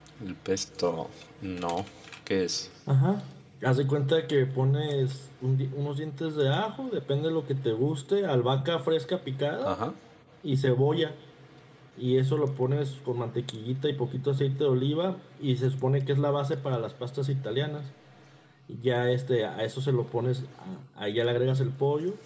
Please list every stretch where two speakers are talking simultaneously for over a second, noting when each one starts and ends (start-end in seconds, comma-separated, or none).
none